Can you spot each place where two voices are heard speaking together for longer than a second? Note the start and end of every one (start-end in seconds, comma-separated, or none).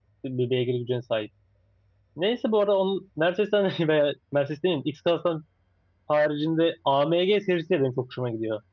none